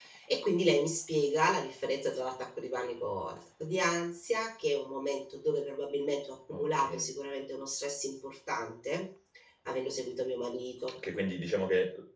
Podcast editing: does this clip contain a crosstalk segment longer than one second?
No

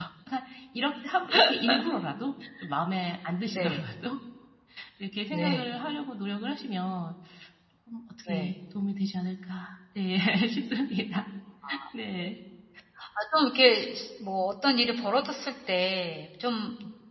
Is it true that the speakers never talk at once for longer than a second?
Yes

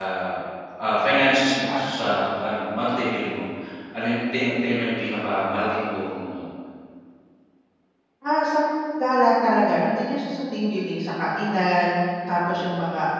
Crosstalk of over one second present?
No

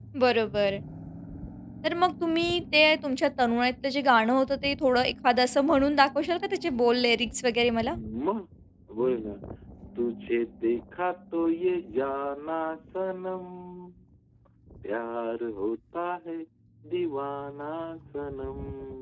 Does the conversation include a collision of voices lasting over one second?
No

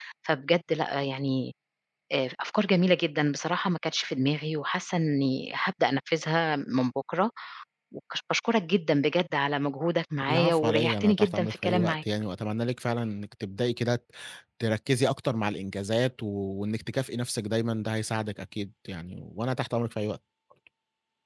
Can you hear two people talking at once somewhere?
Yes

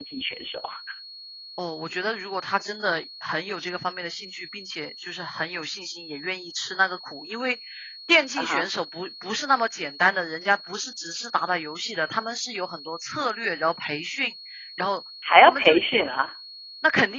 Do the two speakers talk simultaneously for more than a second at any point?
No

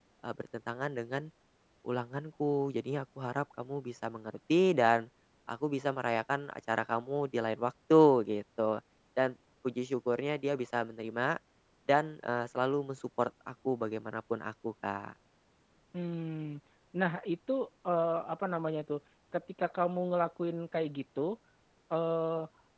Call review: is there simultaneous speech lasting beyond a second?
No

